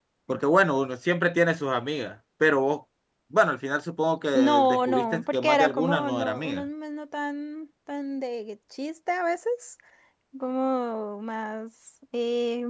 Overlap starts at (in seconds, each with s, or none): 4.3 s